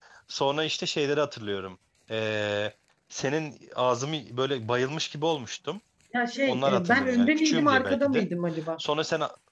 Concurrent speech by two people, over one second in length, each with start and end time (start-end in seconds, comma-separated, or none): 6.5-8.3